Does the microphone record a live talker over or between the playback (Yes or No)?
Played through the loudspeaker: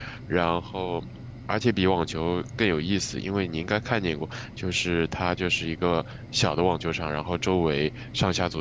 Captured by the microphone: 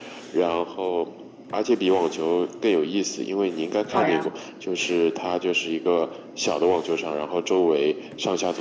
Yes